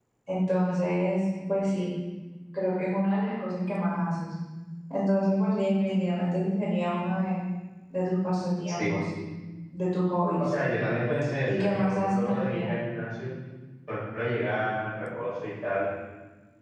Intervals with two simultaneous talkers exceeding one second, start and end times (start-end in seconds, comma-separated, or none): 11.4-12.7